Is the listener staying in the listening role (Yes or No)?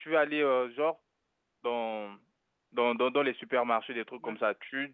Yes